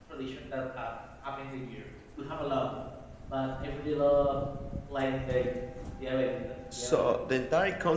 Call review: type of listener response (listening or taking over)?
taking over